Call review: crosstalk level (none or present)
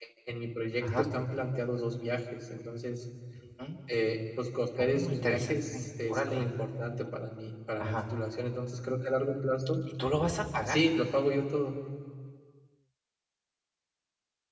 present